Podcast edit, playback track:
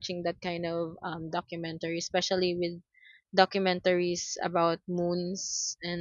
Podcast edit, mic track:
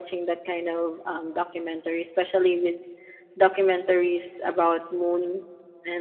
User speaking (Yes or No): No